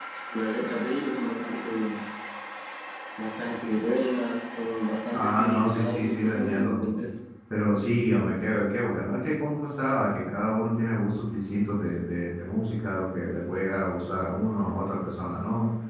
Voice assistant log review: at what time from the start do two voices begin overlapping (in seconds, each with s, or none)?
5.1 s